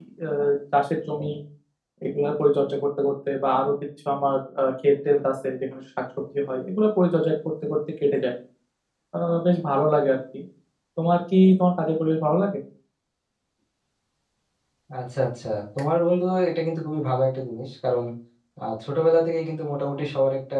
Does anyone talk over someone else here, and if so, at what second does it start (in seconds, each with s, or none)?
none